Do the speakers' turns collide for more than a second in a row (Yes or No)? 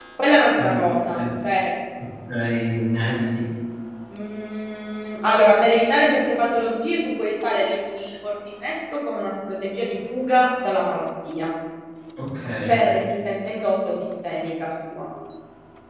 No